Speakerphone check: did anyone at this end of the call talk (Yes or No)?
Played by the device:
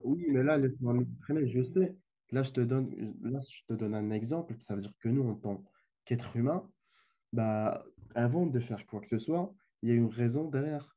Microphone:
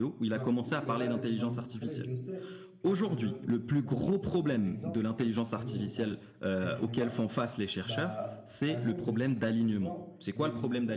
Yes